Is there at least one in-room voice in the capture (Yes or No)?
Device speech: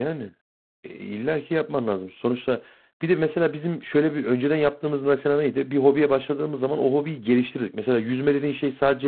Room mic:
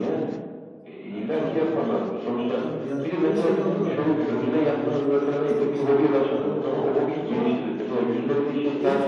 Yes